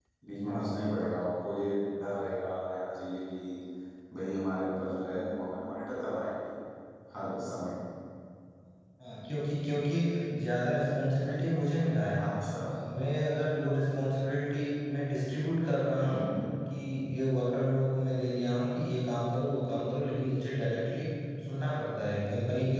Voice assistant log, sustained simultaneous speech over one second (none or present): none